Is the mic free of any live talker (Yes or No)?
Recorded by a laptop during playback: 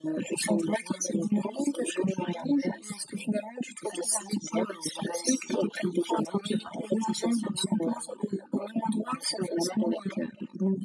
Yes